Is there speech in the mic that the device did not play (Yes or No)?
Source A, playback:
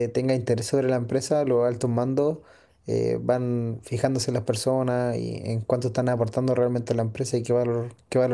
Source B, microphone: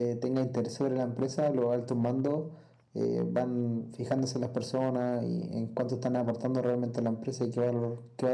No